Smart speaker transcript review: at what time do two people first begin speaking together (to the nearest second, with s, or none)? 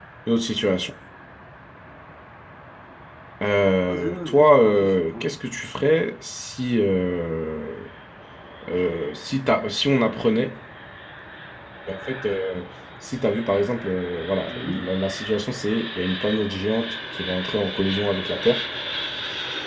4 s